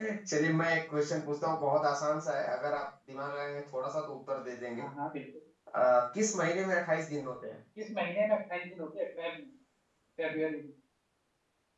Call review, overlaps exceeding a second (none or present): none